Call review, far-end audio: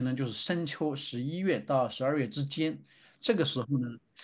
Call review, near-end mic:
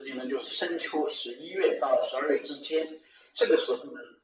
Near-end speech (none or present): none